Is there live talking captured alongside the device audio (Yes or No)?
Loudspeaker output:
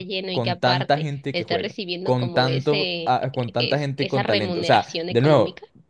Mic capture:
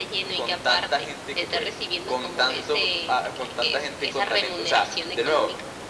No